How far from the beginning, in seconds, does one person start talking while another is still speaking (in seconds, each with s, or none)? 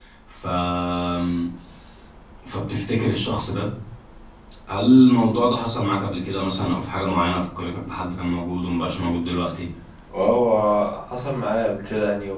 none